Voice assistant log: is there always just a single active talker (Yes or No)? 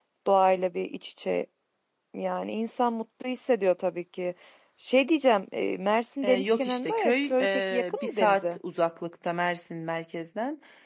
No